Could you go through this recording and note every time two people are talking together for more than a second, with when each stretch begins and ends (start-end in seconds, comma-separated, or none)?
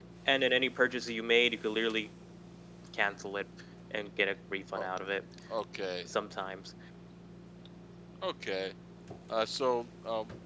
none